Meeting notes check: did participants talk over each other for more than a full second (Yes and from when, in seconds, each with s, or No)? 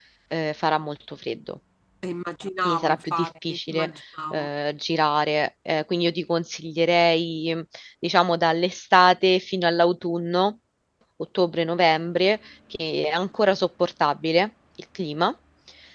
Yes, from 2.6 s